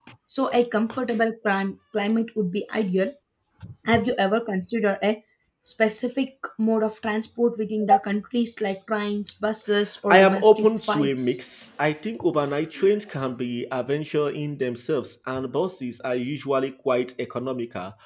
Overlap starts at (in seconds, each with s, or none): 10.1 s